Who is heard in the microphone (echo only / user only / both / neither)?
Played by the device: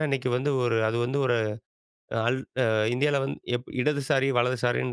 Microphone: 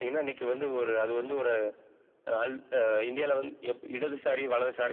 echo only